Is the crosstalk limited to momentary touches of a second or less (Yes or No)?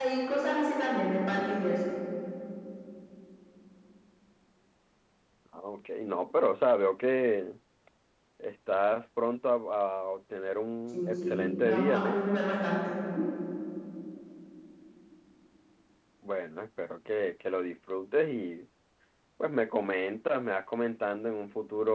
No